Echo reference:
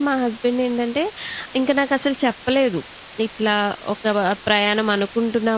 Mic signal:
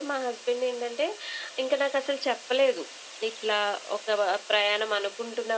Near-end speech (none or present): none